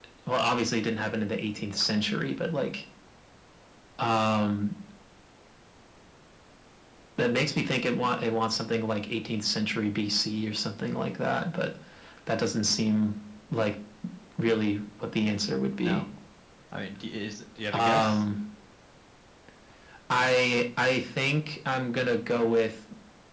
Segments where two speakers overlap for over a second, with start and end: none

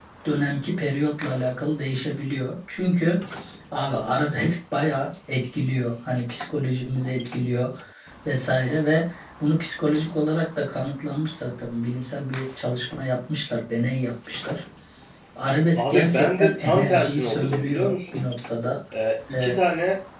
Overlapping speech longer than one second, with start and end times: 15.8-18.2

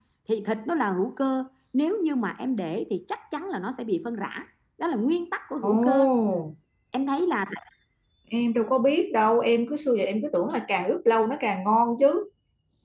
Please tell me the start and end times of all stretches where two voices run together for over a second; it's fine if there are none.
none

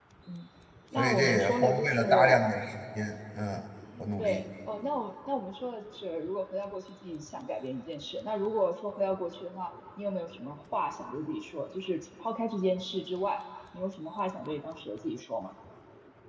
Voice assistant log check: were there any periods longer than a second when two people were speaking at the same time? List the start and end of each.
1.0-2.4

